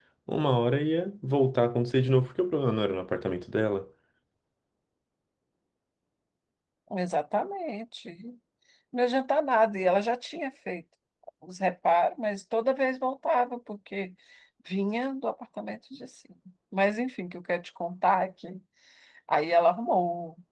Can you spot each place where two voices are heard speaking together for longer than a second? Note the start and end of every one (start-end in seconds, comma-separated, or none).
none